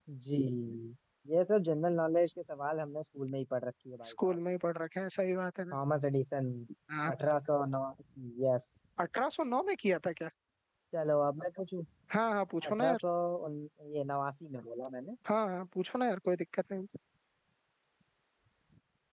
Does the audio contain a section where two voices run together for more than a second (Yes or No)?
No